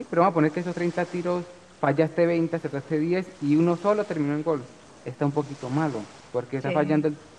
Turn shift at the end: No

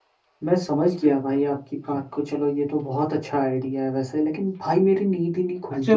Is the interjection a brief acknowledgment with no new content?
No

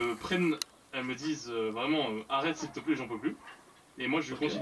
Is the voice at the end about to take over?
No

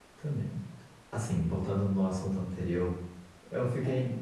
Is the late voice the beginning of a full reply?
No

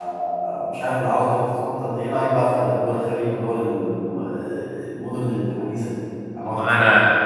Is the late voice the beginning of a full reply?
Yes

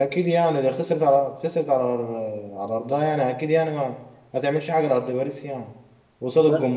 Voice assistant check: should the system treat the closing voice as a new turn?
No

